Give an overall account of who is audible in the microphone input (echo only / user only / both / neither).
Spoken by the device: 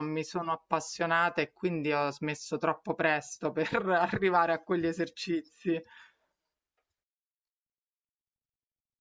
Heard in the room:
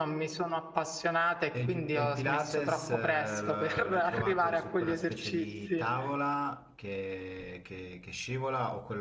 both